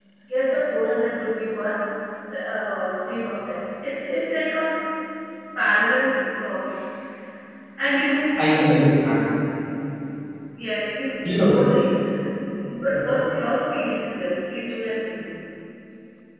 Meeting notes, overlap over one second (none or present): none